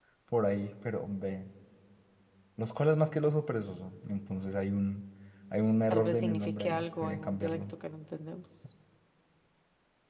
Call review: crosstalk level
present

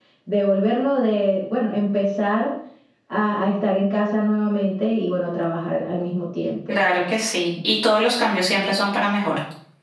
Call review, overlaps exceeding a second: none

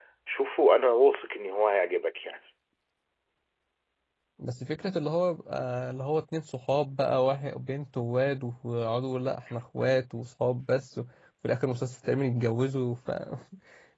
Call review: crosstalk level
none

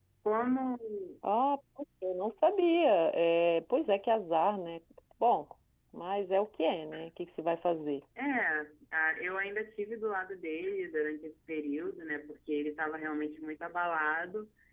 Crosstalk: none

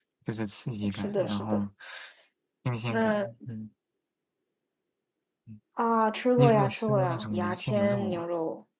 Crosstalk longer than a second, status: present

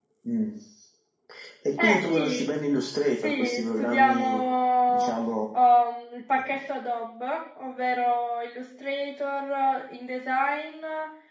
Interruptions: present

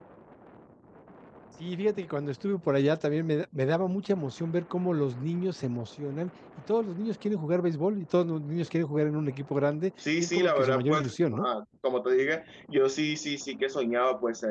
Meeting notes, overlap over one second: present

